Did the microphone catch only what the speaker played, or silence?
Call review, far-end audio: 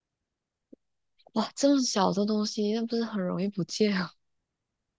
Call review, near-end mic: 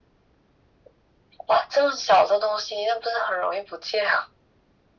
Yes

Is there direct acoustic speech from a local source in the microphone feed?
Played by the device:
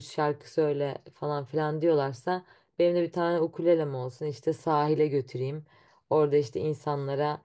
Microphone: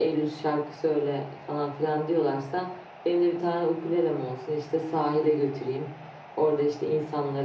No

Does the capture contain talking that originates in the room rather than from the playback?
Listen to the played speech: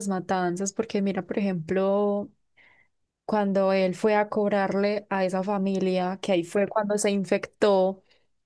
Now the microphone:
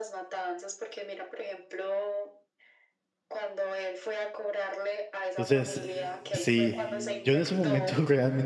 Yes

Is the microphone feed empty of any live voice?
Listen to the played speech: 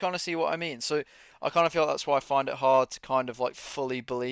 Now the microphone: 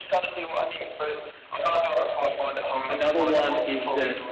No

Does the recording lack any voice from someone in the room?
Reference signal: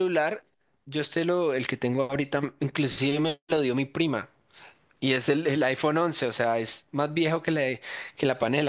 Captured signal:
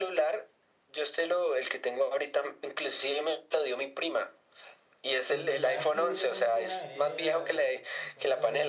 No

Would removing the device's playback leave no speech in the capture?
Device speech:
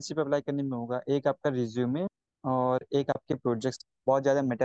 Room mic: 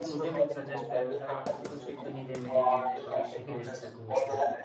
No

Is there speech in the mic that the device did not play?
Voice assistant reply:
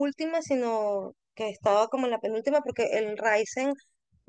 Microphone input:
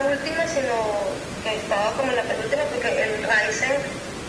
No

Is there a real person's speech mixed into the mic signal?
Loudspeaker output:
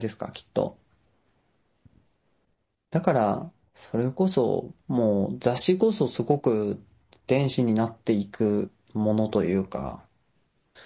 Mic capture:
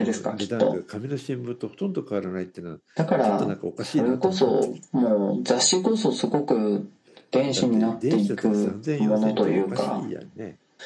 Yes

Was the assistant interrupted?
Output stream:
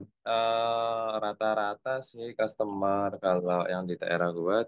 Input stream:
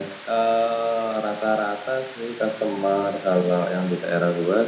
No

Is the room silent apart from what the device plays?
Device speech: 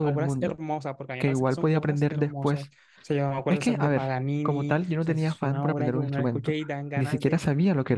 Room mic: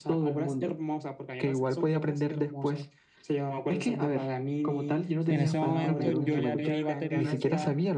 No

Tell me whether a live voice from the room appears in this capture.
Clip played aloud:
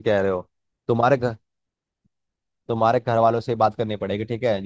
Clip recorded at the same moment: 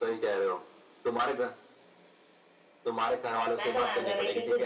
Yes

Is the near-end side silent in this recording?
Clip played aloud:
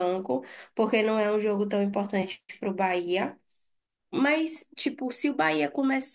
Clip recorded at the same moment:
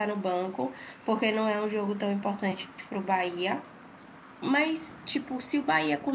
Yes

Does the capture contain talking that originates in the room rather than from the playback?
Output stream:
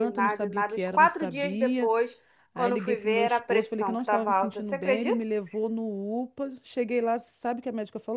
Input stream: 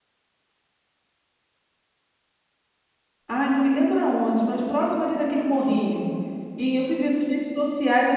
Yes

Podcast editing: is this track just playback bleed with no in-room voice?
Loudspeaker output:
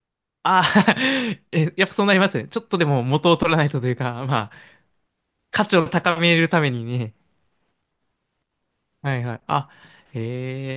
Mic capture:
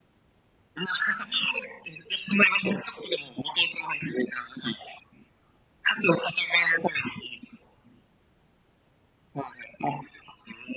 Yes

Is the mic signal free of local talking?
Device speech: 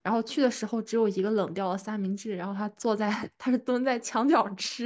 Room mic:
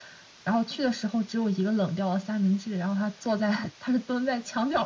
Yes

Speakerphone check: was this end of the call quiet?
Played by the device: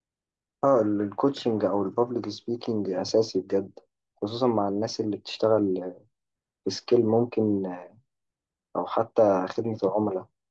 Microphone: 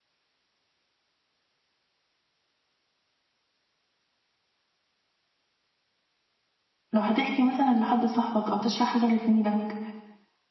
No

